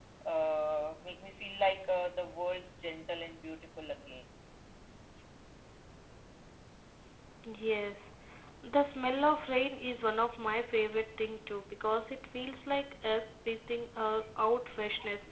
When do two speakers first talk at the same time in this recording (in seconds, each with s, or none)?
none